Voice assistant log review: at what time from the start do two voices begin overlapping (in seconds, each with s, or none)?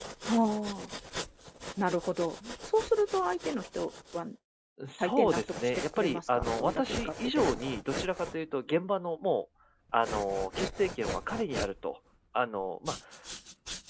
5.0 s